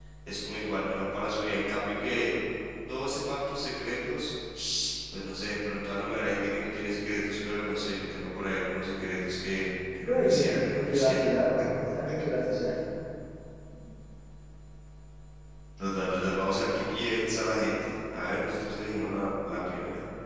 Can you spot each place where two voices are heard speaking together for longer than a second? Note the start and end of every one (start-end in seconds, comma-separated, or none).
10.0-11.3